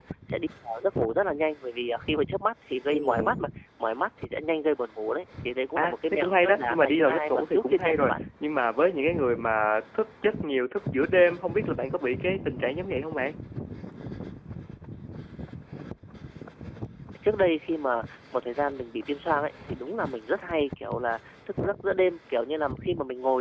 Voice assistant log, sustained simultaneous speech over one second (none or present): present